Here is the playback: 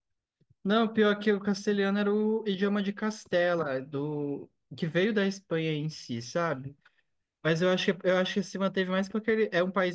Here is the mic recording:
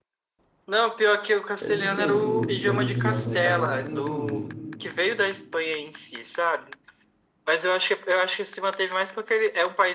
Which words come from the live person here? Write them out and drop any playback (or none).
É, depende do, da região, né? Cada um chama de um jeito.